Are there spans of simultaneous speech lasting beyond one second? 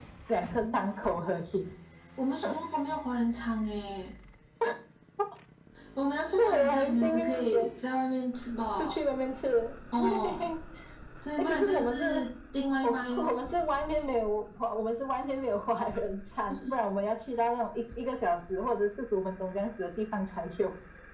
Yes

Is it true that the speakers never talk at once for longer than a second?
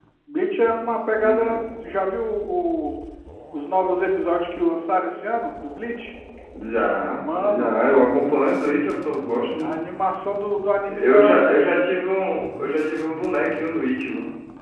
Yes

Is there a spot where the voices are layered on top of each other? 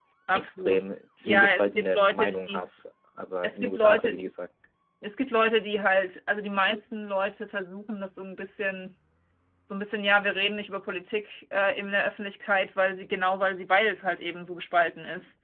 Yes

